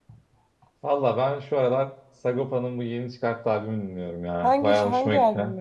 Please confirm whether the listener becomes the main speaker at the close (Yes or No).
Yes